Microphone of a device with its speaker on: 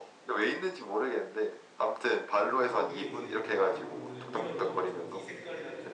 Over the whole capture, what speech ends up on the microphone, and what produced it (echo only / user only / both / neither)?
both